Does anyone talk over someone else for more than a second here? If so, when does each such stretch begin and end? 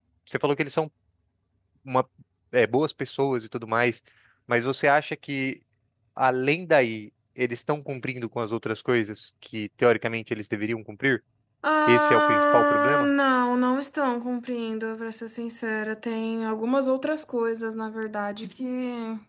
11.9-13.1

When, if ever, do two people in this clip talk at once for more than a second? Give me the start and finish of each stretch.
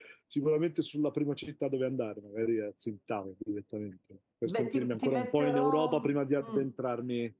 4.5-5.9

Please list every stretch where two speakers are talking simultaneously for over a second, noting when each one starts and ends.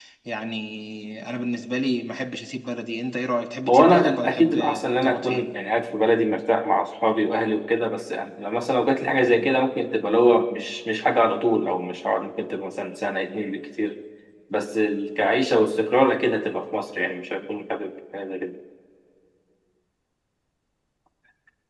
3.7-5.4

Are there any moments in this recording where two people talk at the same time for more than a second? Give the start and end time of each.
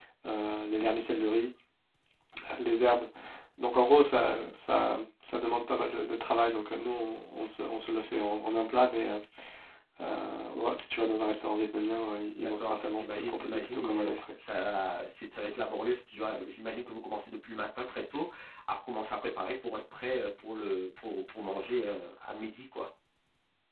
12.4-14.2

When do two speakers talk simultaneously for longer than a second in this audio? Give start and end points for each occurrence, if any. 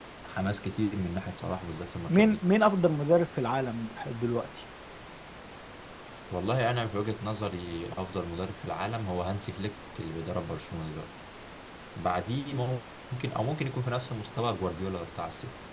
none

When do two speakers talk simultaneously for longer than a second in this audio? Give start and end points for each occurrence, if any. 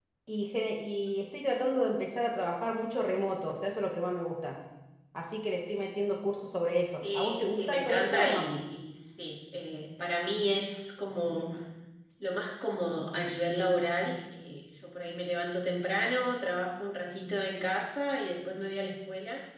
7.1-8.4

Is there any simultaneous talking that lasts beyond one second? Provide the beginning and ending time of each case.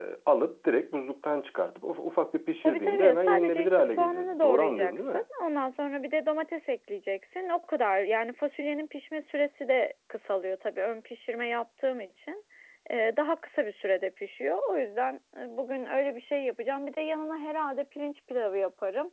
2.6-5.2

